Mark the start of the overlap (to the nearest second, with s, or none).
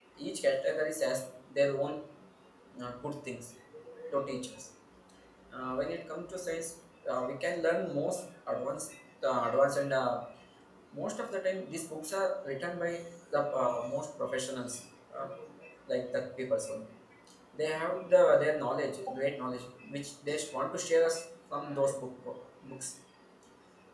none